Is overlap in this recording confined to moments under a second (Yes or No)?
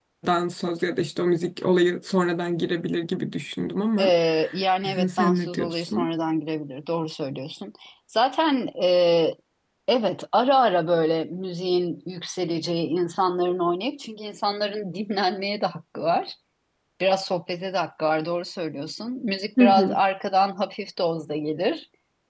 No